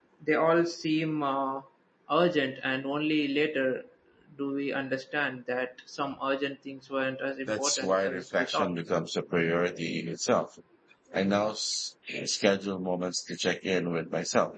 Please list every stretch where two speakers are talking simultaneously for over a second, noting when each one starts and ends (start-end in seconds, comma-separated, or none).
7.5-8.8